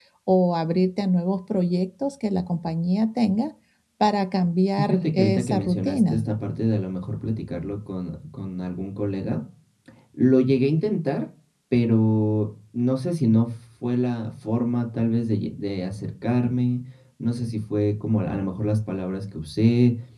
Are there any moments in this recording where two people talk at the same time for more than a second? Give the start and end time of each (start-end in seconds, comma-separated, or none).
4.8-6.2